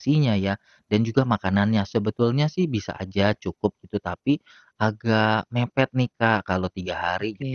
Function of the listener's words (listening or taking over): listening